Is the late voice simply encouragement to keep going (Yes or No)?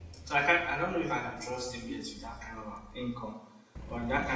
Yes